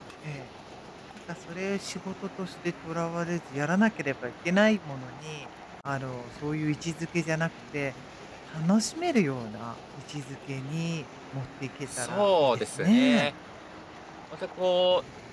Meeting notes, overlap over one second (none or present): present